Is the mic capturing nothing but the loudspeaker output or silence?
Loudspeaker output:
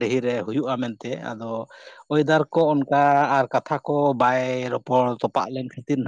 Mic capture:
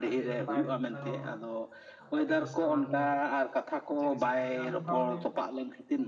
No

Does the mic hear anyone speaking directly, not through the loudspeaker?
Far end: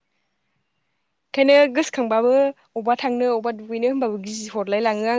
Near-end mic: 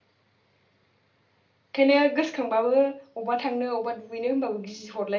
No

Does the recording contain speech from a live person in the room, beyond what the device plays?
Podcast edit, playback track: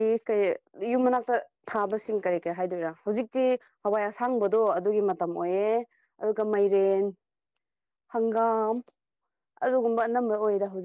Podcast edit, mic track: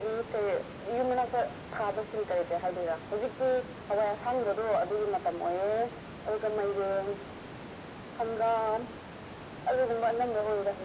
No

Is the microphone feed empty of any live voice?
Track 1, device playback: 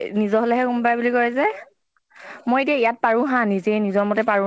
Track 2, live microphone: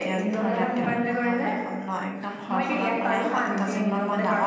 No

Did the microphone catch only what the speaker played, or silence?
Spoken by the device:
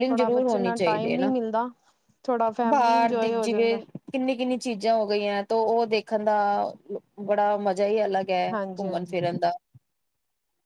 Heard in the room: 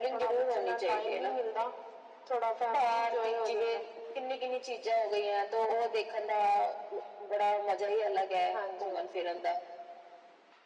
Yes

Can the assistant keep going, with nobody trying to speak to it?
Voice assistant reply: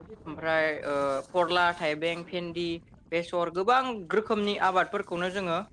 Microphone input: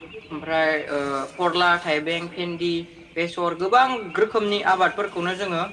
Yes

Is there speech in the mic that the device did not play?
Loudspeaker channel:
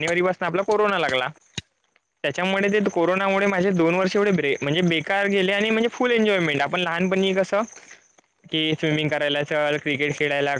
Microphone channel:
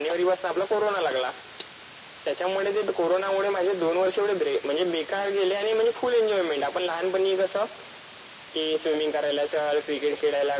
No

